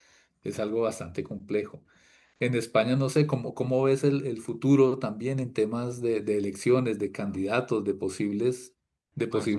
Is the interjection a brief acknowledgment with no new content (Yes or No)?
No